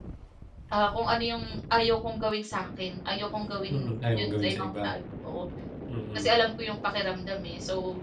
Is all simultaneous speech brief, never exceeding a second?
No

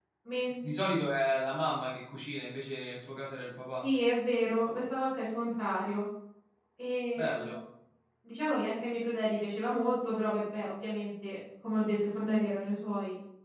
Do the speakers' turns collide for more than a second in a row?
No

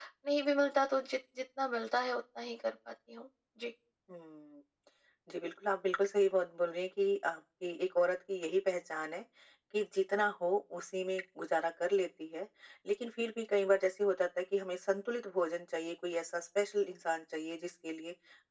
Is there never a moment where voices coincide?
Yes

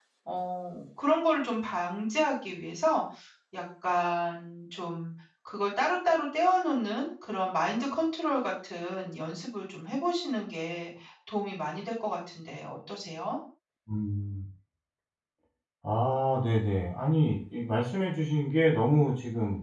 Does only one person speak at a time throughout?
Yes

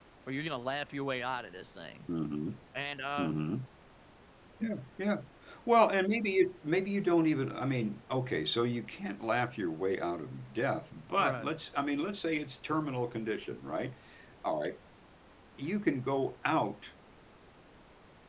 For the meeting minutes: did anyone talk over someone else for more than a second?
No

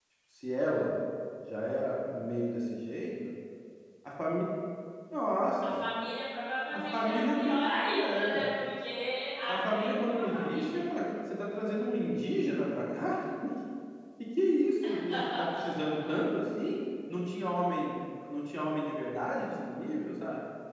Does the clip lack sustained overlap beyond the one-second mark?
No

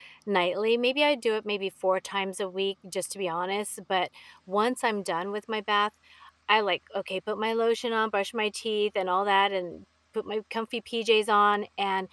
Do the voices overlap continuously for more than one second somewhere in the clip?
No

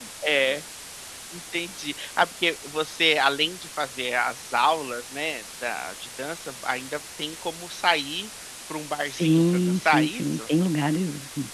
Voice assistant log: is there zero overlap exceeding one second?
No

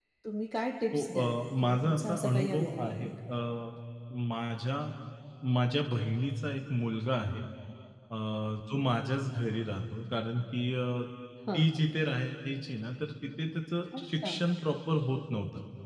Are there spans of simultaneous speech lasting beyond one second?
Yes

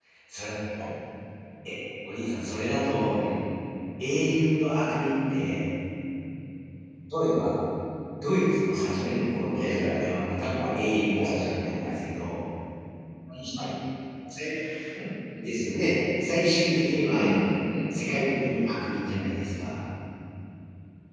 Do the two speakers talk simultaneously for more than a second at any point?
Yes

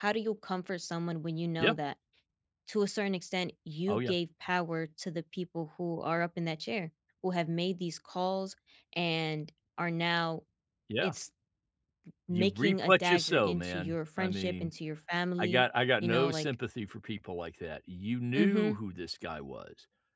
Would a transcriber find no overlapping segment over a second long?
No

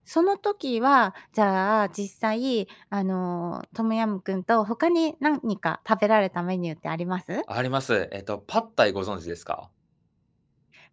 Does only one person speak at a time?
Yes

